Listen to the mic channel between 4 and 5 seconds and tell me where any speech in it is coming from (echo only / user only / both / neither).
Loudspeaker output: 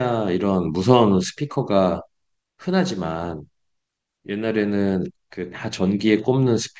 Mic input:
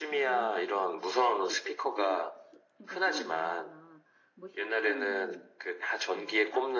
both